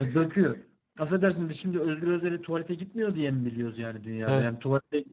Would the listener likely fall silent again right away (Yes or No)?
Yes